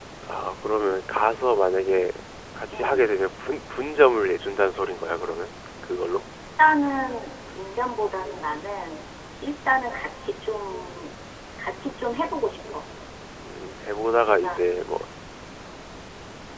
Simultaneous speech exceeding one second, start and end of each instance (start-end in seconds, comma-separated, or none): none